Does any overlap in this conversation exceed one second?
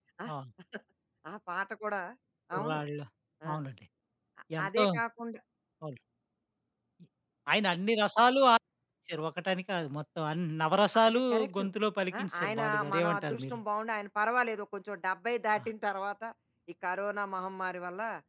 Yes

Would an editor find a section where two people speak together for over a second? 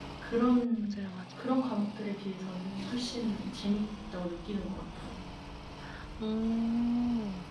No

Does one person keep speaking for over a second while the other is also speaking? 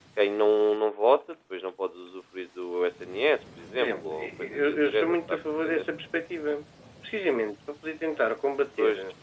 Yes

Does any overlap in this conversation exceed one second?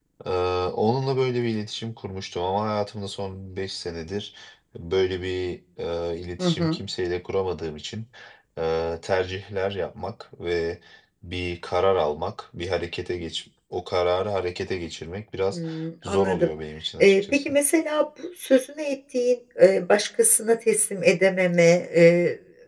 No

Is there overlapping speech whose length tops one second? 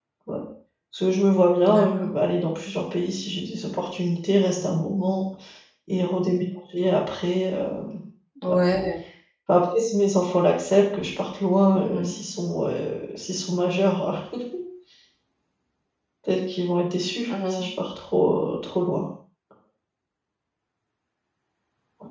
No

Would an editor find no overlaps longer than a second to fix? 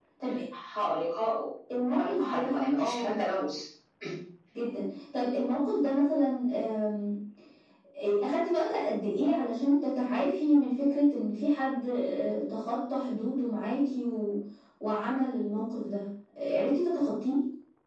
No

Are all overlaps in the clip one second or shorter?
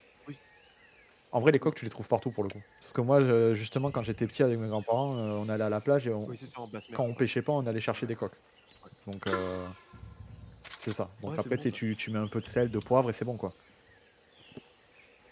Yes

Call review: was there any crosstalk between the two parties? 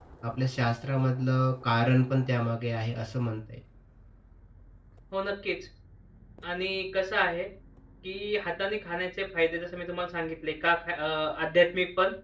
No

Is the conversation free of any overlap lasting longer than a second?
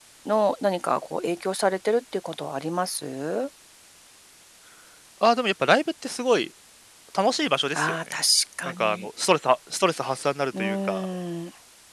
Yes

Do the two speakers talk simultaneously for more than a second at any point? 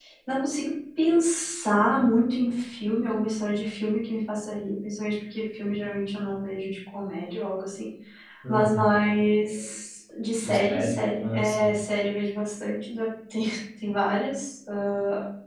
Yes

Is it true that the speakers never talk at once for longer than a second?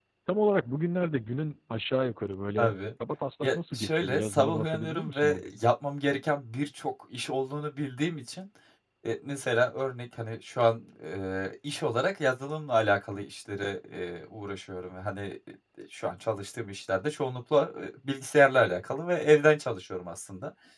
No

